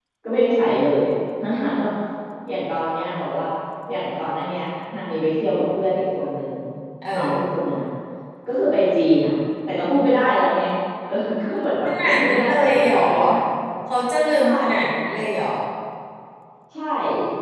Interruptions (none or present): present